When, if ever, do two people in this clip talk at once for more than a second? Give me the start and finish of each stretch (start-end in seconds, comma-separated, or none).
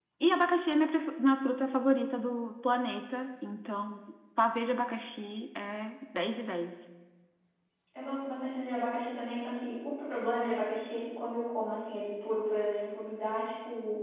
none